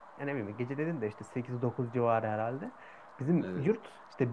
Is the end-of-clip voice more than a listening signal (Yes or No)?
No